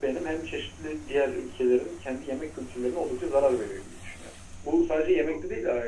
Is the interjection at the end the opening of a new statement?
No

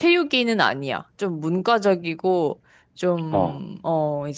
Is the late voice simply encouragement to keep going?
Yes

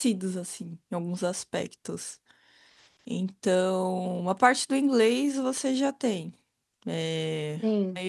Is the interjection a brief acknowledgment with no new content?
Yes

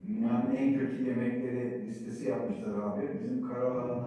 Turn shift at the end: No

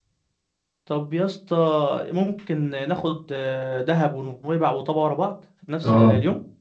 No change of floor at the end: No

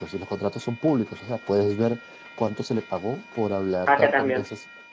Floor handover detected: No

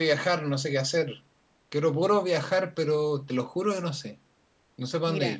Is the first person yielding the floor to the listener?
Yes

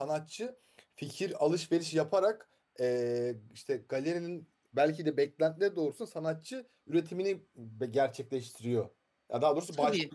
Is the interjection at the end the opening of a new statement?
No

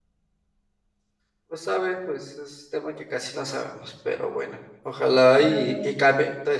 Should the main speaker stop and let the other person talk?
No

